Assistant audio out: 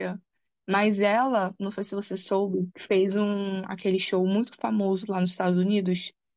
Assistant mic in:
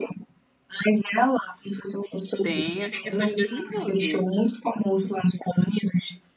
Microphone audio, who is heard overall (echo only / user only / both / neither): both